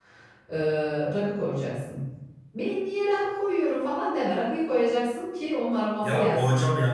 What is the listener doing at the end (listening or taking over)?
taking over